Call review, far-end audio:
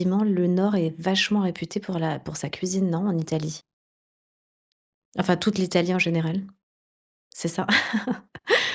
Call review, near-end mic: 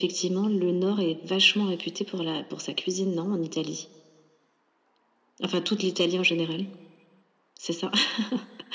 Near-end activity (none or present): none